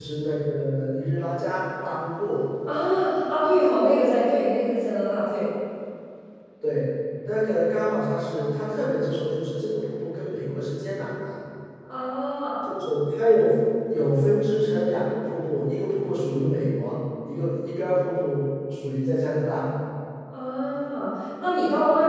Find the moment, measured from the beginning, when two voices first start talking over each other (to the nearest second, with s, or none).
none